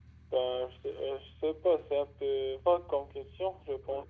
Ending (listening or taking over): taking over